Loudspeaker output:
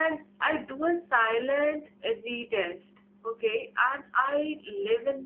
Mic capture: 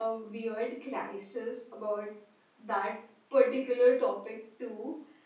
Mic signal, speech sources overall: user only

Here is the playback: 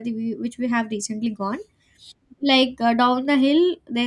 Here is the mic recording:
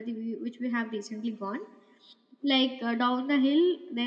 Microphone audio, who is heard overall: echo only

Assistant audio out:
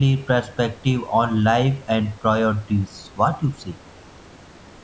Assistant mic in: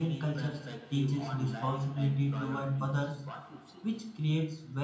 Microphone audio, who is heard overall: both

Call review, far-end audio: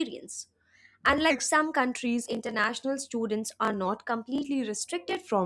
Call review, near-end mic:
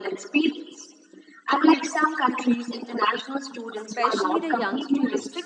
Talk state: both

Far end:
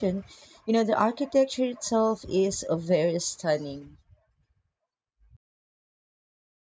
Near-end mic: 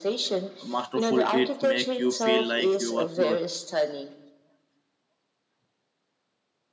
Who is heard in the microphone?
both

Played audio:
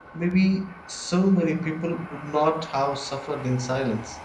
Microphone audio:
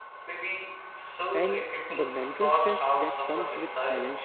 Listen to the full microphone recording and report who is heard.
both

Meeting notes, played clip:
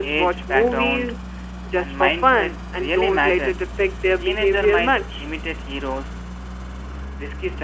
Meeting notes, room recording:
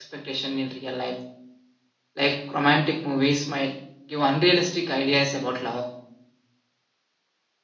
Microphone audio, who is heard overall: user only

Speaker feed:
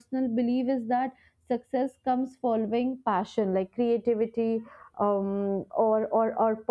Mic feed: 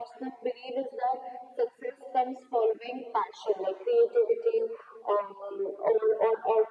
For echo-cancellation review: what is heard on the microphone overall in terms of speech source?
echo only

